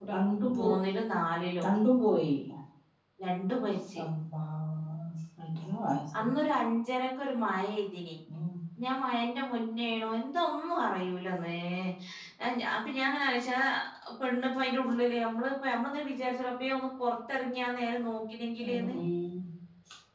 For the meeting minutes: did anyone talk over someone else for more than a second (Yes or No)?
No